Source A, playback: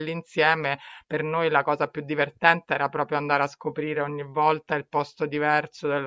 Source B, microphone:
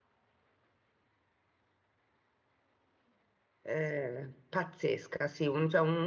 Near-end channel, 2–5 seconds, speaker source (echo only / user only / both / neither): user only